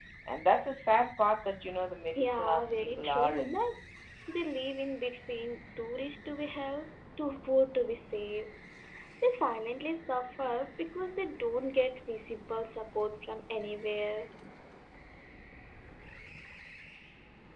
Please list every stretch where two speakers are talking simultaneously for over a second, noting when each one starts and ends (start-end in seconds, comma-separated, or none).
2.2-3.6